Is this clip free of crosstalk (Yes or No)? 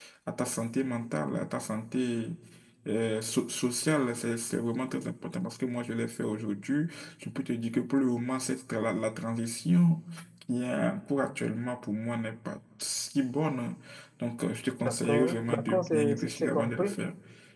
No